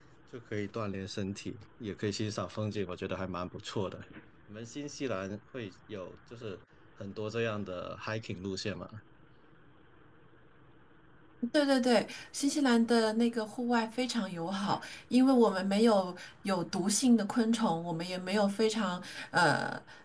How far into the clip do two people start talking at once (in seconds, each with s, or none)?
none